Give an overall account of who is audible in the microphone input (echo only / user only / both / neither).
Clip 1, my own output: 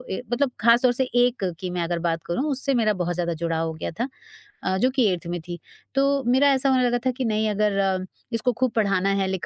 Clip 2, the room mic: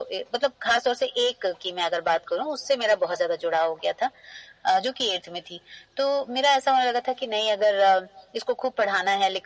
echo only